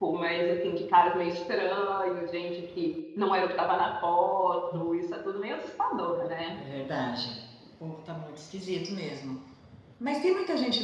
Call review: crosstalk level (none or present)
none